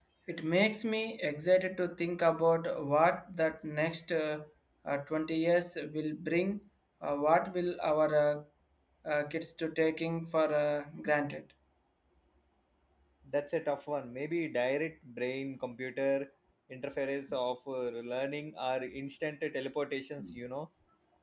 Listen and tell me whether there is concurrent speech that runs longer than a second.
No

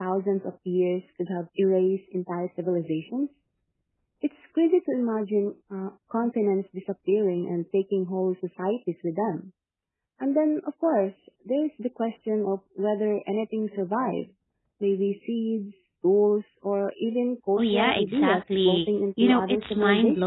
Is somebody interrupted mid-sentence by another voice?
Yes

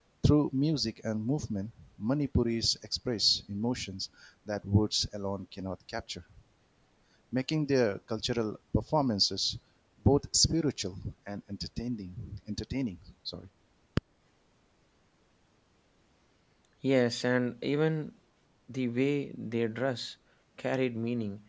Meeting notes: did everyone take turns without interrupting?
Yes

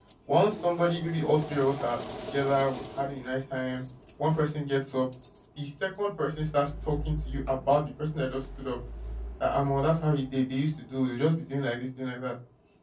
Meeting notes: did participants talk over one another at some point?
No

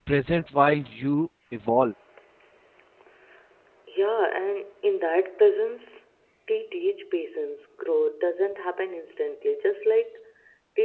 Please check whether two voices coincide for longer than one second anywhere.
No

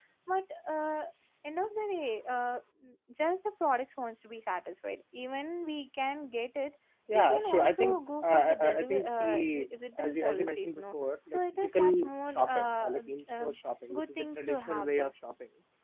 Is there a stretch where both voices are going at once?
Yes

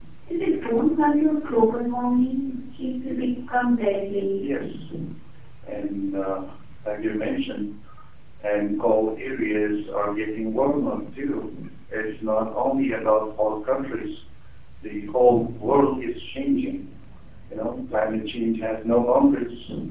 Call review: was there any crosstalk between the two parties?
No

